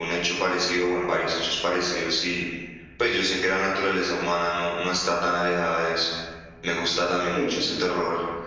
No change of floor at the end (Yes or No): Yes